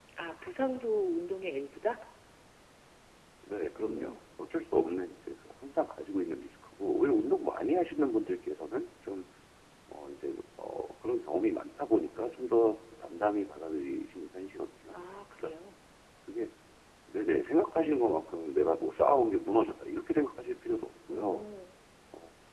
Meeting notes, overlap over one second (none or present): none